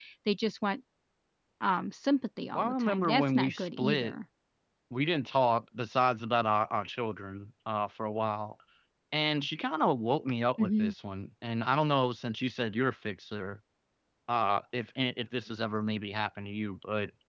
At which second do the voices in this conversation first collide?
2.5 s

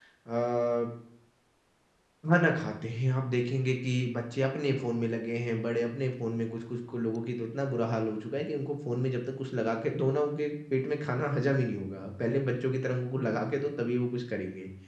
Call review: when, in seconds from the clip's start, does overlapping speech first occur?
none

